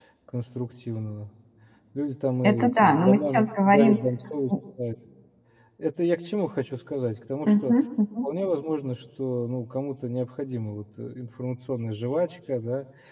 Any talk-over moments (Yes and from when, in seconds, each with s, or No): Yes, from 2.4 s